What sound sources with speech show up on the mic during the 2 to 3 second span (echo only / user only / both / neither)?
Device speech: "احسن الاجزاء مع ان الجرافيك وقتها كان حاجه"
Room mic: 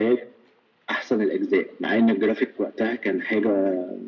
echo only